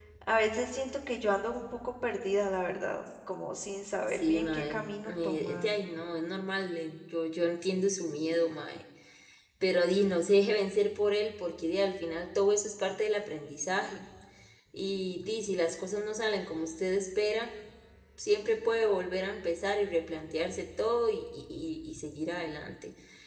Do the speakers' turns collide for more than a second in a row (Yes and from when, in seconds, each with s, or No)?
Yes, from 4.1 s